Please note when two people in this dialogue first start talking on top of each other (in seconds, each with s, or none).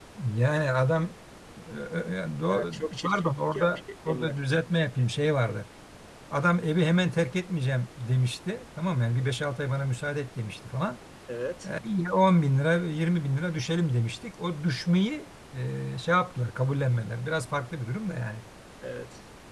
2.5 s